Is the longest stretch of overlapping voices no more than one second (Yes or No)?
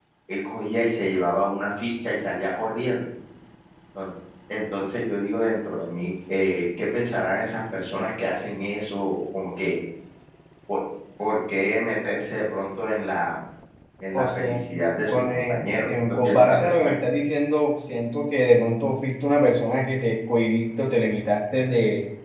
No